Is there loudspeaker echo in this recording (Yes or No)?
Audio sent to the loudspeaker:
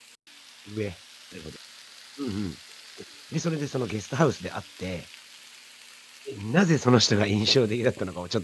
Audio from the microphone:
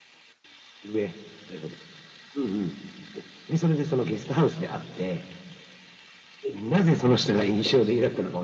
Yes